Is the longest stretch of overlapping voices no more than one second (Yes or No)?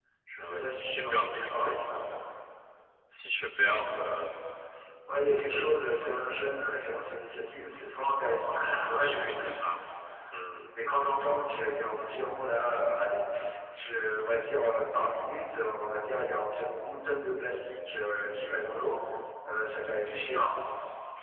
No